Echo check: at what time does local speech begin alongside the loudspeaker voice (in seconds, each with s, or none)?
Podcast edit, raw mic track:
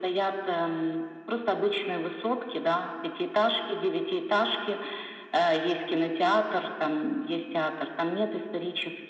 none